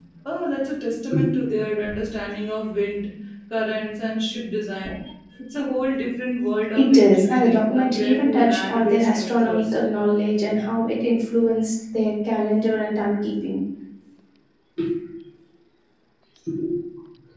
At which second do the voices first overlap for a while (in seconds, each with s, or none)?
6.8 s